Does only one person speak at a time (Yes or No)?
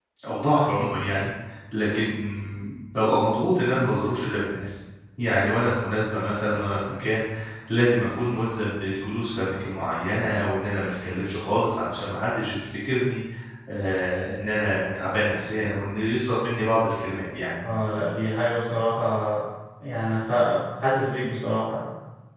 Yes